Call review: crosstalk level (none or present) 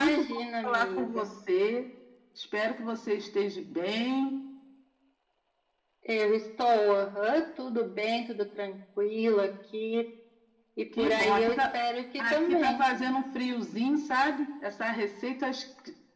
present